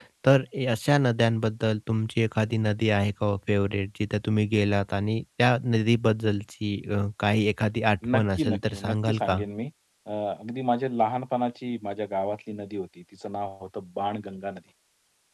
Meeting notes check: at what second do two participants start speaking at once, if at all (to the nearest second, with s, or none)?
8 s